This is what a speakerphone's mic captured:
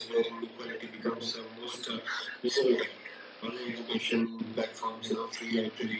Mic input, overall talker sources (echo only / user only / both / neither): echo only